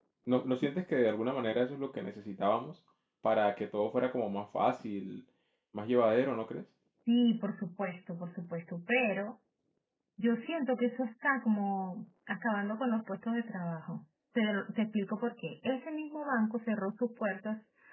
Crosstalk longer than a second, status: none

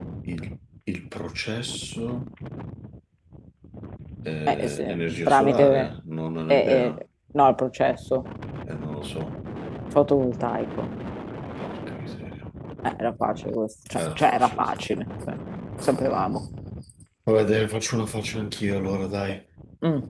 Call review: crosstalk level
present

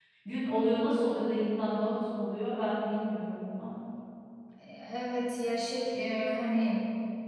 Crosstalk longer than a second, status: none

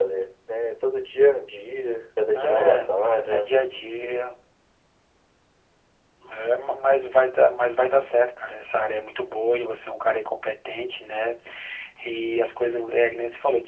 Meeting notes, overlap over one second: none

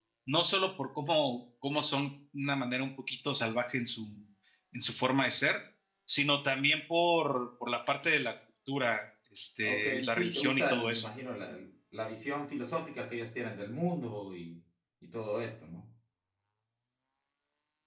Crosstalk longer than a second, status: present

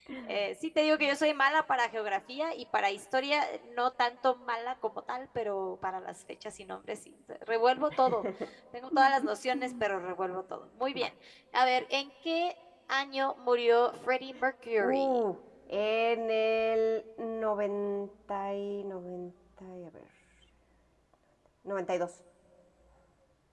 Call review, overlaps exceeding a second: none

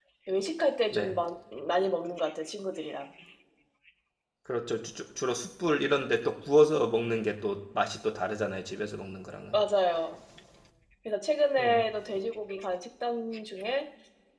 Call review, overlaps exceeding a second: none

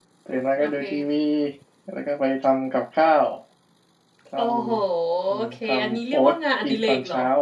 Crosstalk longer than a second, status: present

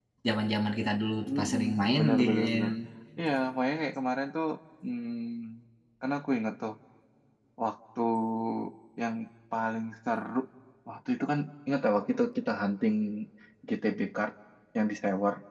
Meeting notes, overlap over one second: present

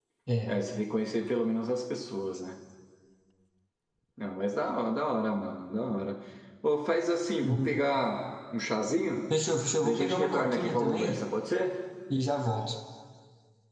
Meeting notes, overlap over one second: present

